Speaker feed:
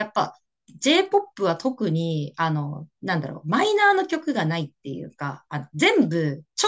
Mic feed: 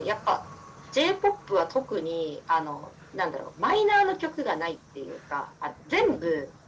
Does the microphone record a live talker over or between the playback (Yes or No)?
No